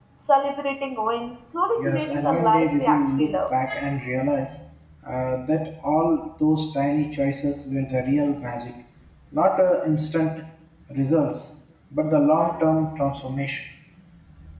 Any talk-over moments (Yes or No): Yes